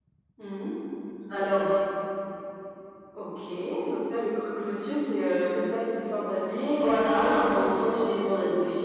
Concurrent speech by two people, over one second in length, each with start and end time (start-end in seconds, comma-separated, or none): 6.7-8.2